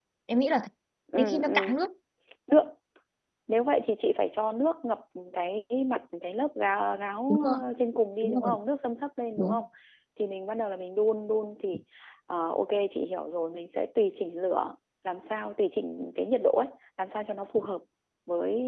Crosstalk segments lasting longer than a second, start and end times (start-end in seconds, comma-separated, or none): none